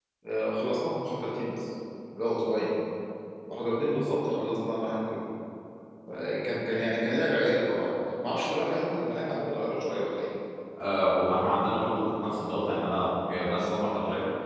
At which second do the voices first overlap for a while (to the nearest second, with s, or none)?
none